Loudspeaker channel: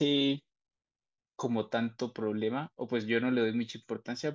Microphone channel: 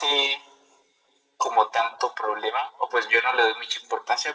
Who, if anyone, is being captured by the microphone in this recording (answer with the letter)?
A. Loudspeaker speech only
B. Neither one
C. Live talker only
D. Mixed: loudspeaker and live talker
A